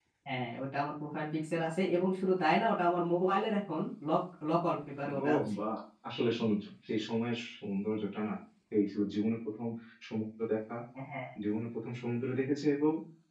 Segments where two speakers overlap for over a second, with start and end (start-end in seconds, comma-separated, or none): none